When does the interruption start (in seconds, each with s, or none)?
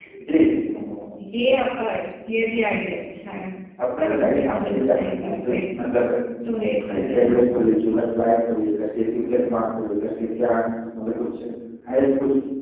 4.0 s